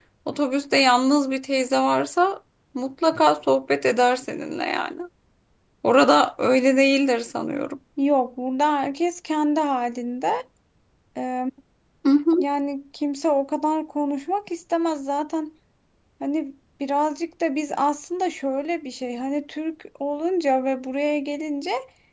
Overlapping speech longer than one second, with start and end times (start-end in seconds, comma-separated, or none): none